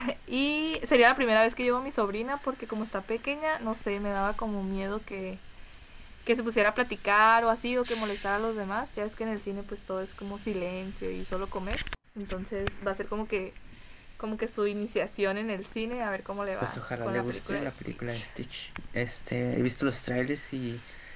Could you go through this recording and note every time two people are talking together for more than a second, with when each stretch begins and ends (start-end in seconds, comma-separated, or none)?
16.6-18.3